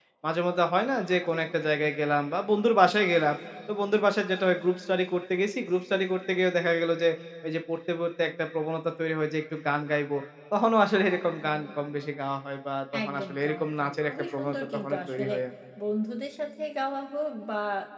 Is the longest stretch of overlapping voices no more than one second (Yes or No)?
No